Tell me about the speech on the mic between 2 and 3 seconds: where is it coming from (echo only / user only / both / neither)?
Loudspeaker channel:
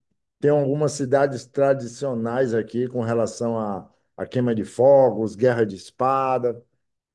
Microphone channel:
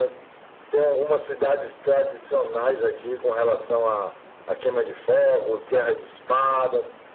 echo only